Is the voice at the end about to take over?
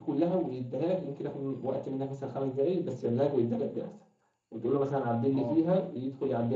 No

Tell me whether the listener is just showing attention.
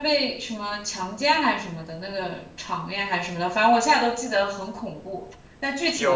No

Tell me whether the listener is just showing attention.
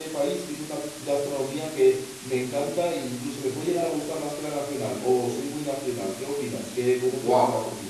No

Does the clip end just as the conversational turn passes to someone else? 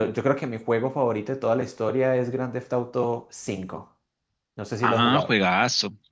Yes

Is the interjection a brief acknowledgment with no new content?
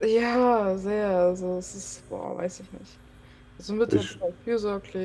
Yes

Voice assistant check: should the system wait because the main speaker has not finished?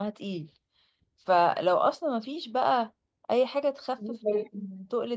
Yes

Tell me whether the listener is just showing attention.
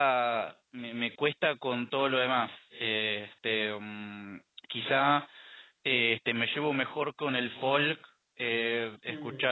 No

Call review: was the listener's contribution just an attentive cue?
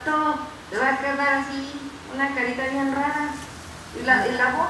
Yes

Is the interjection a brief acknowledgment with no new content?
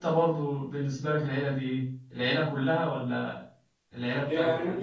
No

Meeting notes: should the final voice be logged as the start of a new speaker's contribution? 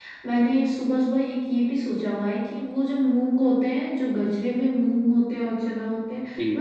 No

